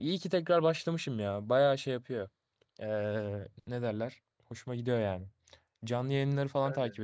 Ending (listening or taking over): listening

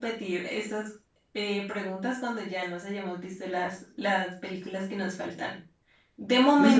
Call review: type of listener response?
listening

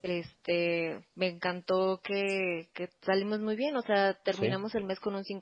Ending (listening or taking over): listening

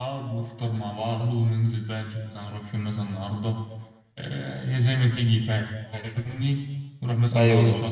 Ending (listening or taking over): listening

